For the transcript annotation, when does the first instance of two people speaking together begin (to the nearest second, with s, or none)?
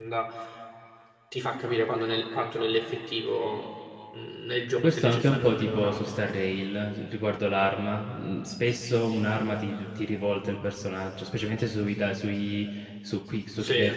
5 s